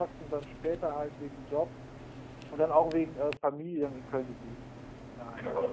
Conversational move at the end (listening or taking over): taking over